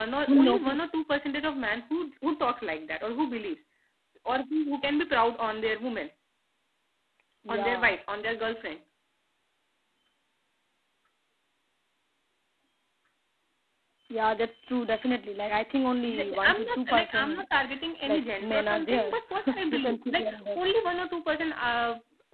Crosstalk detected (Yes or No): Yes